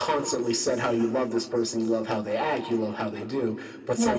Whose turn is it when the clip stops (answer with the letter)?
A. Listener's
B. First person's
A